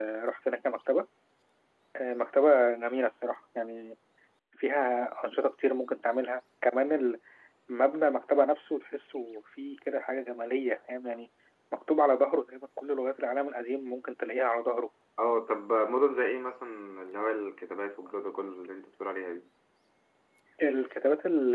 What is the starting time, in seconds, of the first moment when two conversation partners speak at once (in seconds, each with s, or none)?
none